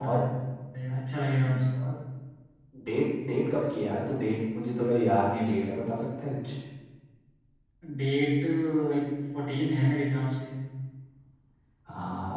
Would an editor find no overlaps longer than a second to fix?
Yes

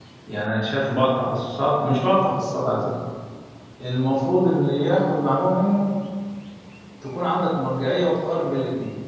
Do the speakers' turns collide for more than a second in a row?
No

